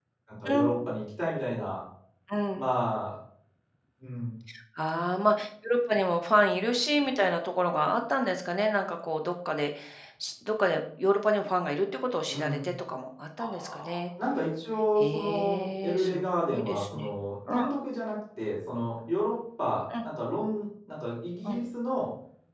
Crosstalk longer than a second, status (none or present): present